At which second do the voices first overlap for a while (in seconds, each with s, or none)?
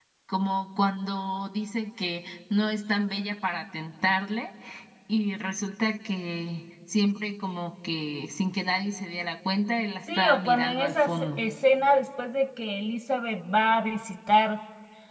10.1 s